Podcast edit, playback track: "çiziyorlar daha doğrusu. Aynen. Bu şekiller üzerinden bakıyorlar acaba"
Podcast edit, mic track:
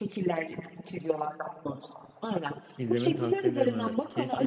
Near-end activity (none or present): present